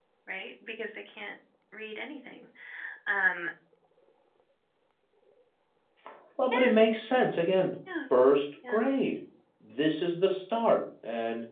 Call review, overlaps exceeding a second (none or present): none